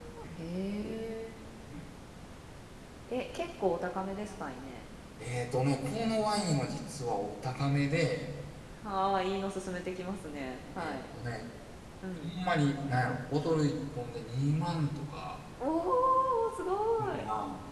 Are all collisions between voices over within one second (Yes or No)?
Yes